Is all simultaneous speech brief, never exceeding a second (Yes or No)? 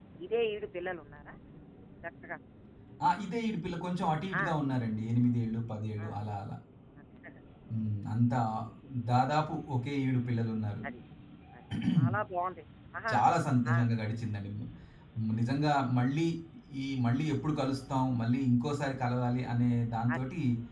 Yes